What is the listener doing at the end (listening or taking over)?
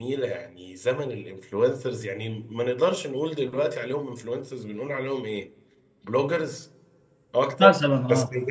listening